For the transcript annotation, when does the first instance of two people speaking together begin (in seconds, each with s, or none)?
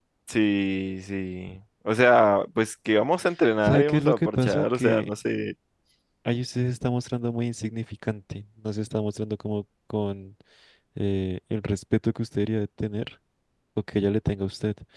3.6 s